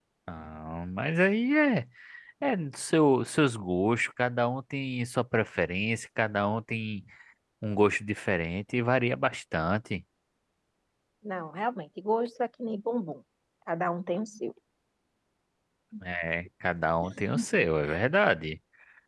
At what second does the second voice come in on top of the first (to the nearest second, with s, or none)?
none